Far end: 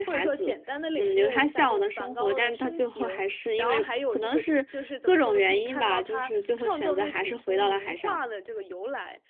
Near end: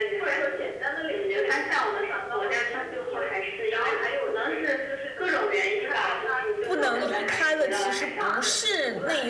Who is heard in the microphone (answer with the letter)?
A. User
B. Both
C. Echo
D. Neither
B